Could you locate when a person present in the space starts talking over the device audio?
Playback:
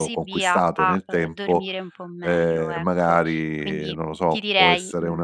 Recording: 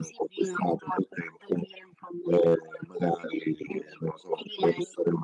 none

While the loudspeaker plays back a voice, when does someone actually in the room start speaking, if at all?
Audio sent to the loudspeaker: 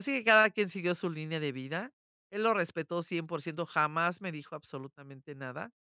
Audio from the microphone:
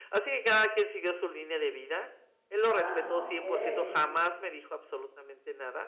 2.6 s

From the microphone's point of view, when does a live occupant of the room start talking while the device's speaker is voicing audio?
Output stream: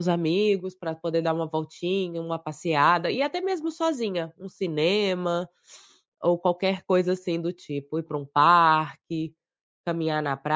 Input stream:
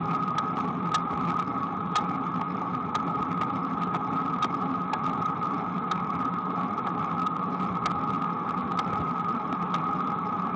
none

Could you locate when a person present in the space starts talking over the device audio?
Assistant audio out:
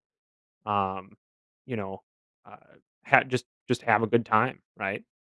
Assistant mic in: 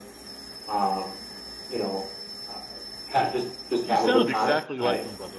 3.8 s

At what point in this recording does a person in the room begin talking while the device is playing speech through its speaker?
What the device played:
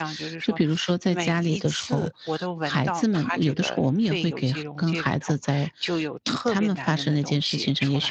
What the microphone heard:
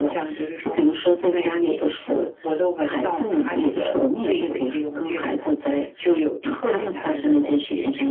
none

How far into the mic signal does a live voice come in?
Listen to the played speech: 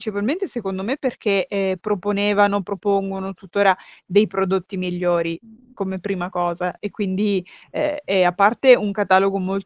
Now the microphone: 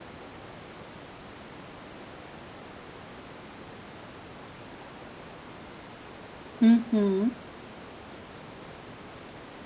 6.6 s

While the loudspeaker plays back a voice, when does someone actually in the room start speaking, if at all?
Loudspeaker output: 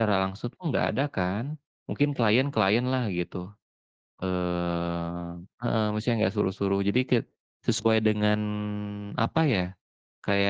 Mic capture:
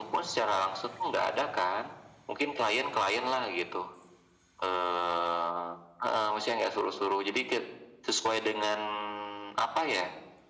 none

